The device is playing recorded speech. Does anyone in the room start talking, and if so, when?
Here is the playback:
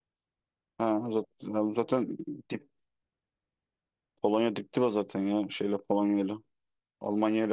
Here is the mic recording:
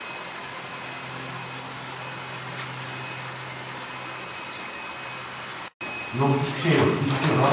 6.1 s

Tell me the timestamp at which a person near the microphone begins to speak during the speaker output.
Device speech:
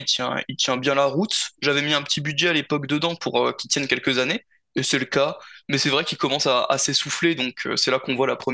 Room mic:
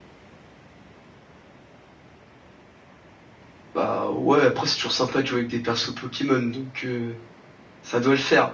3.7 s

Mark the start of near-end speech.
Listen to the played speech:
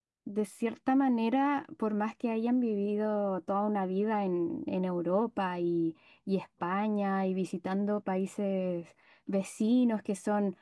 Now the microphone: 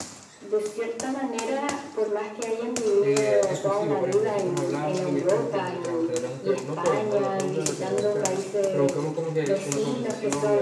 3.0 s

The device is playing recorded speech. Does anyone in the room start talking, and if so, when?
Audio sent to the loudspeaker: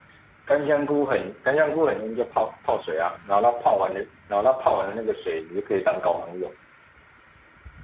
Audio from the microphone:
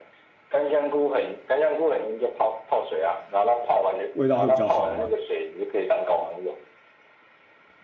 4.1 s

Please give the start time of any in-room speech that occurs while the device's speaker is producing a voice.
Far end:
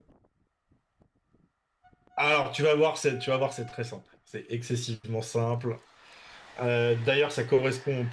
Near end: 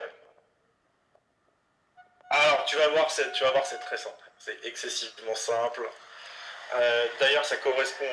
none

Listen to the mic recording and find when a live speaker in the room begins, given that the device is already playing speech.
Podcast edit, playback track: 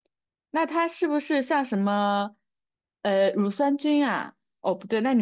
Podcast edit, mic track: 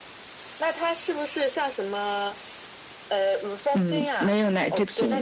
3.7 s

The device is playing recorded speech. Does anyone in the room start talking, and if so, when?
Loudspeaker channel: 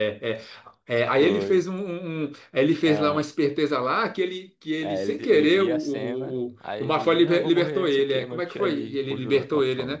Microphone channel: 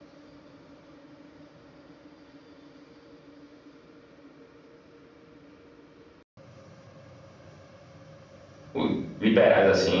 8.7 s

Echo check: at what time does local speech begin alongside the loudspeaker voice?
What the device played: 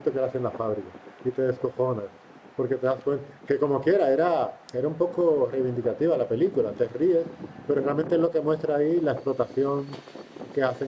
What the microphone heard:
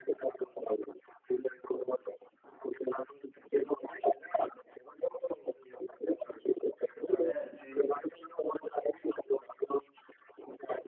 7.0 s

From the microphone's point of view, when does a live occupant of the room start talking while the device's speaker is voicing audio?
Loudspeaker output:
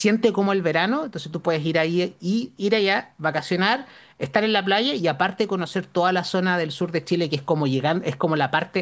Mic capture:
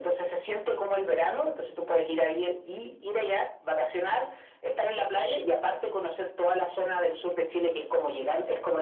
none

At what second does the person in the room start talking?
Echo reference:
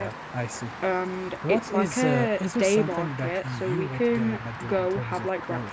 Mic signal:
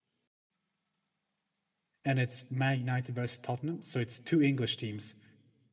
2.0 s

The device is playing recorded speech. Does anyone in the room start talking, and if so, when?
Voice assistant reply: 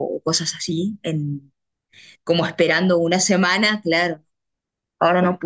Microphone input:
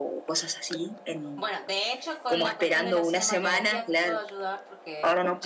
1.4 s

